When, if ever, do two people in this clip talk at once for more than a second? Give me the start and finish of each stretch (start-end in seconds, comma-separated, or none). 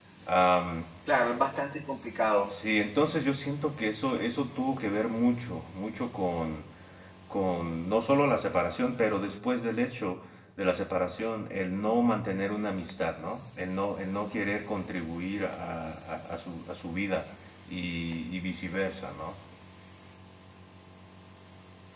none